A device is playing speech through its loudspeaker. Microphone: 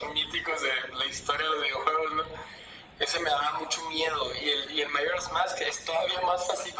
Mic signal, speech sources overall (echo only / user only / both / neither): echo only